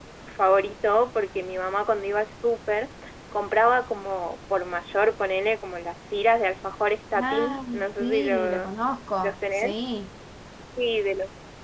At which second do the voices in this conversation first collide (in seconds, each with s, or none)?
7.2 s